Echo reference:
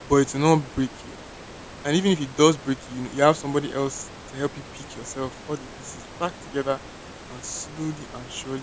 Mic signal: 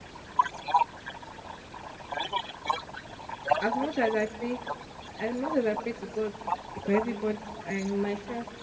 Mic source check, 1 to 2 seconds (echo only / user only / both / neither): echo only